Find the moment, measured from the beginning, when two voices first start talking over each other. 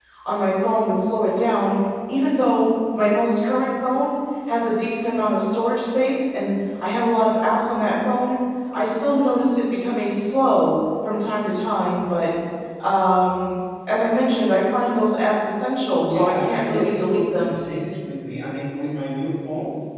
16.0 s

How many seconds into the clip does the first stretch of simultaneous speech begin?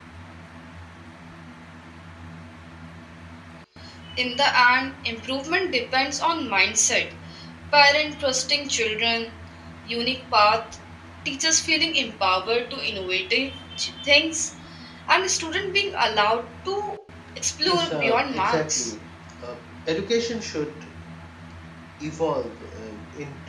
17.7 s

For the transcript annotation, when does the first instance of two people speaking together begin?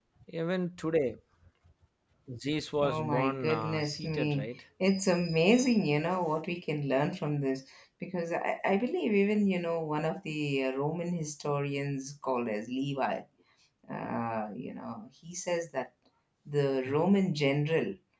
2.8 s

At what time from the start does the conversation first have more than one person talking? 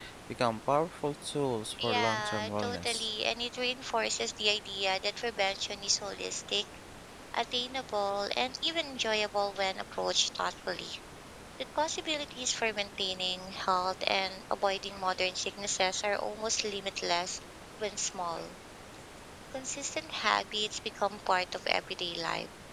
1.8 s

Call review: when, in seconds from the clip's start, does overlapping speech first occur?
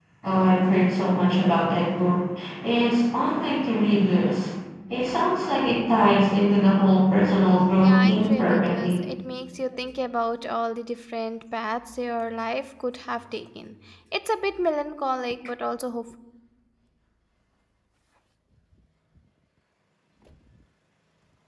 7.8 s

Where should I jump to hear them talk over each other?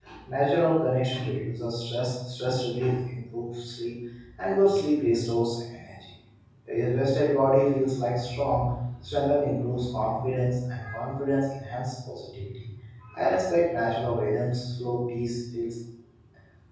none

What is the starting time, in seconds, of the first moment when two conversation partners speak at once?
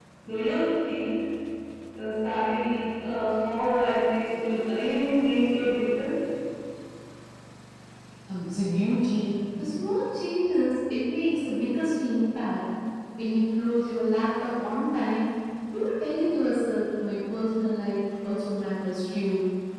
none

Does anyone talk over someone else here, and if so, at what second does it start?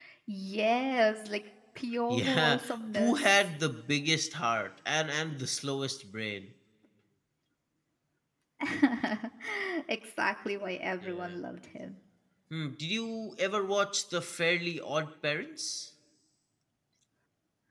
2.1 s

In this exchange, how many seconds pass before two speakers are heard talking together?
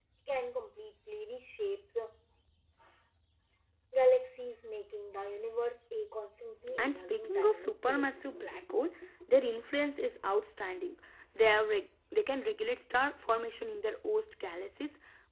6.8 s

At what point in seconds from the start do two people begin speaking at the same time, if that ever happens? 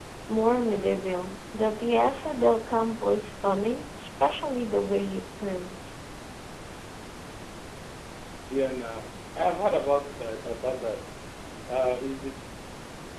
none

